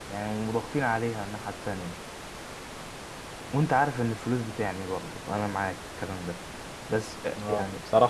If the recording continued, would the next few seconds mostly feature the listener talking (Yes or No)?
Yes